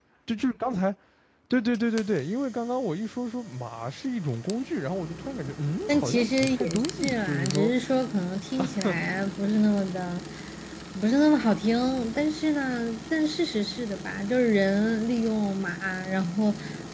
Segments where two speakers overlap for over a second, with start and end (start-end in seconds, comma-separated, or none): 5.9-7.7